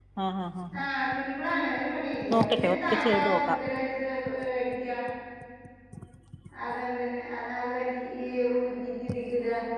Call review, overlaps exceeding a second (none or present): present